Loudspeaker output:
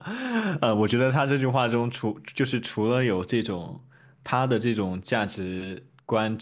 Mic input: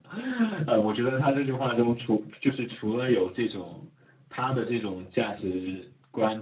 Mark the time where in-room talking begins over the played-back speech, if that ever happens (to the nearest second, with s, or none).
none